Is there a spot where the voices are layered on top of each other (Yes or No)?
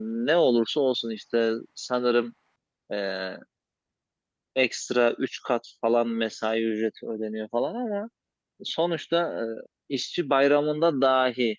No